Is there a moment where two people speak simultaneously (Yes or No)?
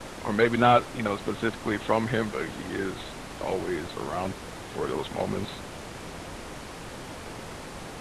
No